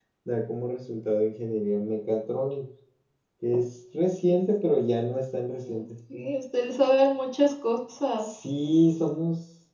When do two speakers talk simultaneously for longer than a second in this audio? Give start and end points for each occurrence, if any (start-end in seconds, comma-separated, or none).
none